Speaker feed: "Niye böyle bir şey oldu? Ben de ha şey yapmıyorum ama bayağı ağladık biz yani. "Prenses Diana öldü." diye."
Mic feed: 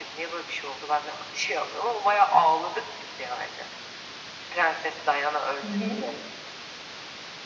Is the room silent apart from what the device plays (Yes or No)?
No